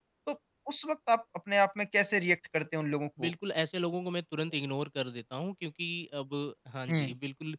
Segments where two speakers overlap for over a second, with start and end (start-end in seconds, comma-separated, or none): none